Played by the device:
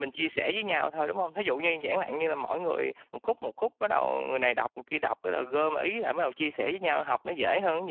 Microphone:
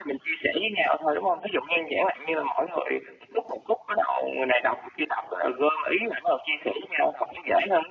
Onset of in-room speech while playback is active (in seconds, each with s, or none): none